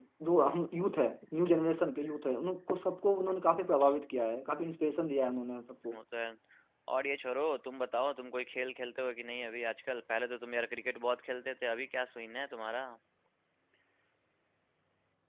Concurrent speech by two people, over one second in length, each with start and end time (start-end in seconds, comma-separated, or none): none